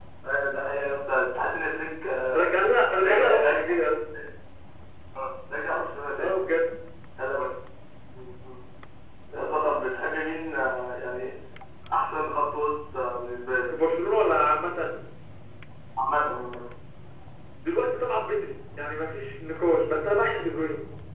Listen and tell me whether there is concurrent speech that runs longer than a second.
No

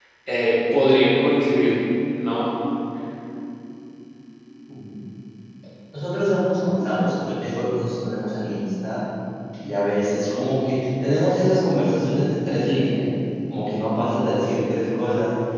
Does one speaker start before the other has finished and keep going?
No

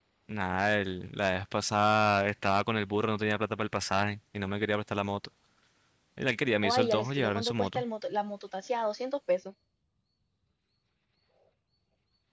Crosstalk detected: Yes, from 6.6 s

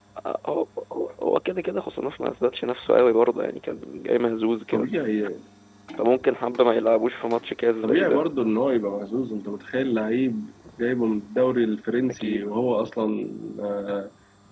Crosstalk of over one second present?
No

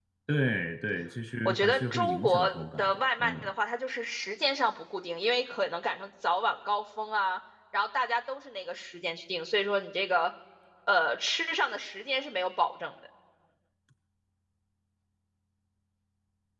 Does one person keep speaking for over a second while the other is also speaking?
Yes, from 1.4 s

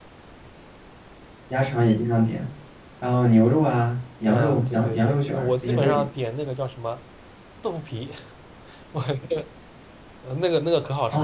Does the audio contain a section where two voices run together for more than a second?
Yes, from 4.3 s

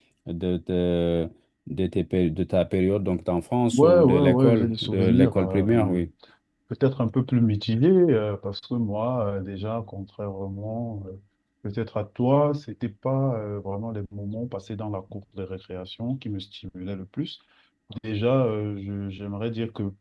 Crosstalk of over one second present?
Yes, from 3.7 s

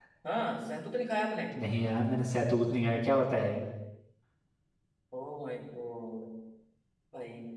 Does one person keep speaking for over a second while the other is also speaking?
No

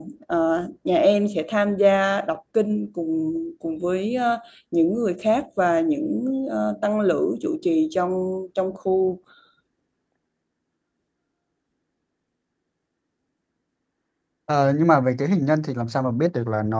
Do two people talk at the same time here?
No

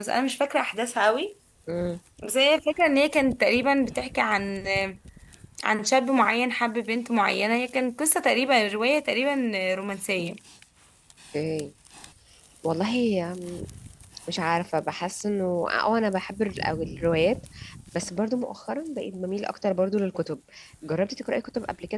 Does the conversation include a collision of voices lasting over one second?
No

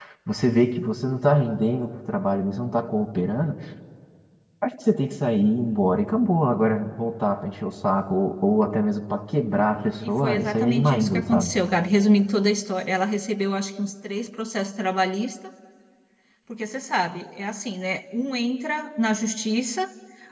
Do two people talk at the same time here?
Yes, from 10.0 s

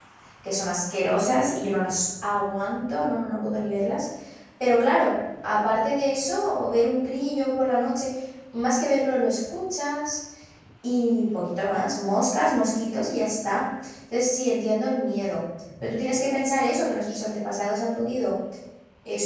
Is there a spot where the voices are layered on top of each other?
No

